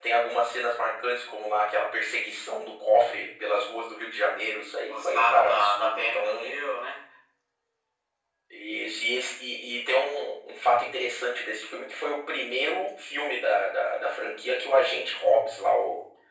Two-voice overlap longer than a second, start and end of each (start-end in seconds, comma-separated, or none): 4.9-6.6